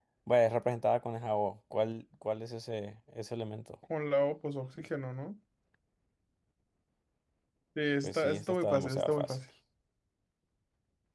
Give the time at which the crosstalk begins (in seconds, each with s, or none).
8.0 s